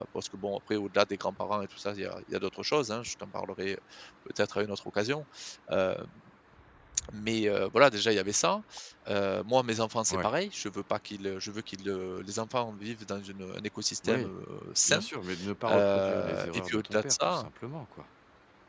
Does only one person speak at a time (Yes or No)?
No